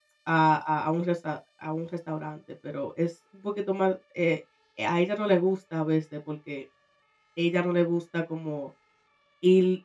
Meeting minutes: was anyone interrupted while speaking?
No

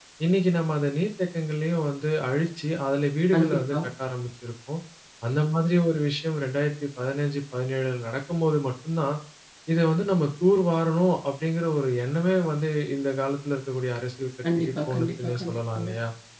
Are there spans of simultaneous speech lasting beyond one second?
Yes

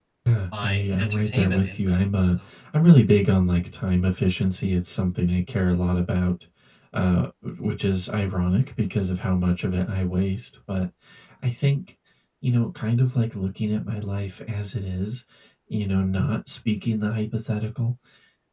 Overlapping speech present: Yes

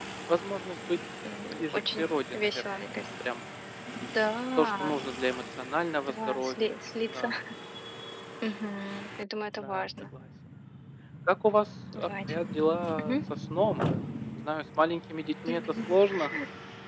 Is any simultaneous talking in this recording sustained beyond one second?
Yes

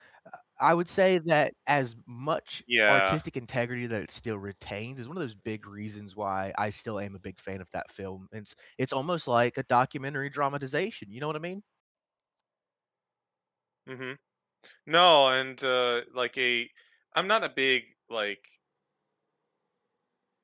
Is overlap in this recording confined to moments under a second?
Yes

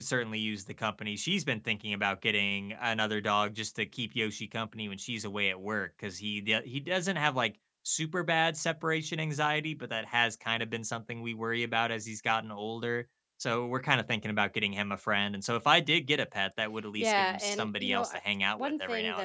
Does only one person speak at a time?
No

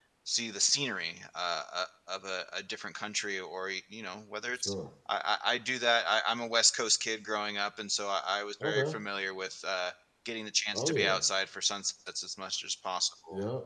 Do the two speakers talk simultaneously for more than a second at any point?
No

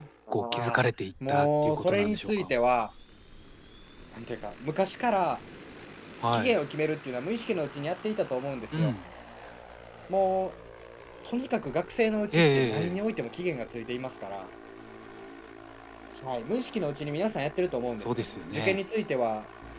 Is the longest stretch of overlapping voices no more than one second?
No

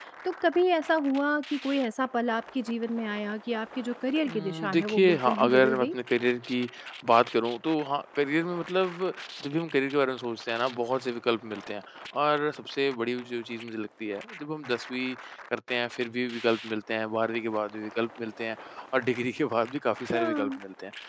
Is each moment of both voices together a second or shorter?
No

